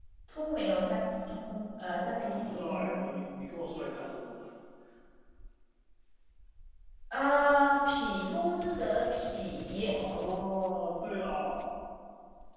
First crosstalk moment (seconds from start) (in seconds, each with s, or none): 1.9 s